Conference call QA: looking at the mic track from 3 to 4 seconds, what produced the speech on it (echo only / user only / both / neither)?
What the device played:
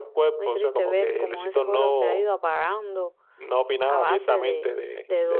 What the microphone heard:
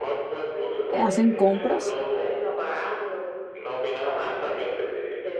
echo only